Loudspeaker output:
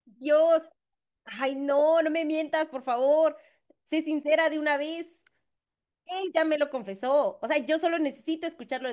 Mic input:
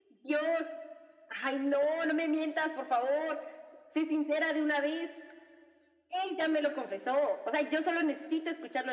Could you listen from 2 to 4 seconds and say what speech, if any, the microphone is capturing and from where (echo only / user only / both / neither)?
echo only